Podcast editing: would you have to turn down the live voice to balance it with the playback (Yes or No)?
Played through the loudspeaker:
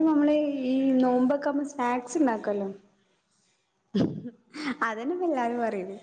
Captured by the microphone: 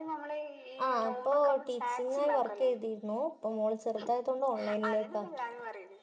Yes